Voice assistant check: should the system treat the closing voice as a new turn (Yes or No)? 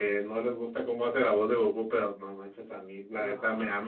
No